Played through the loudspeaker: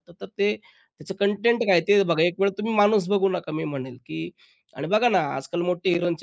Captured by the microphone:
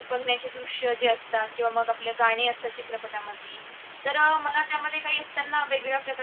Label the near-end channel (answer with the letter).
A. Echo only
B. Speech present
B